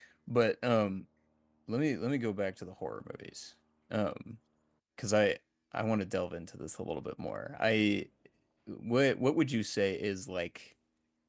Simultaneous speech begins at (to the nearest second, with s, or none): none